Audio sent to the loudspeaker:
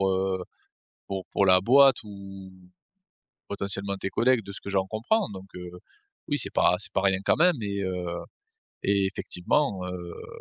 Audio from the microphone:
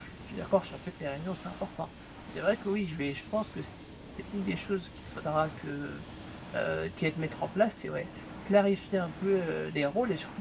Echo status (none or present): none